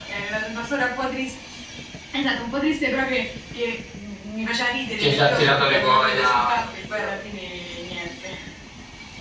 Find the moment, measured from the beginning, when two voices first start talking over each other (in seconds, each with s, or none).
5.0 s